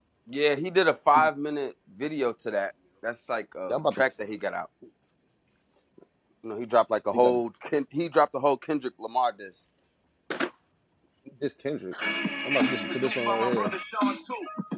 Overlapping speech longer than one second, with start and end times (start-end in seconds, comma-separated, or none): none